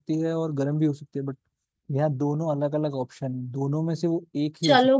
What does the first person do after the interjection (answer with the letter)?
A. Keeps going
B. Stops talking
B